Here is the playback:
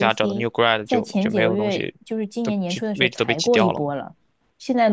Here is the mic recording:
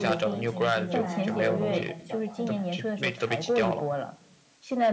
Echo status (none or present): present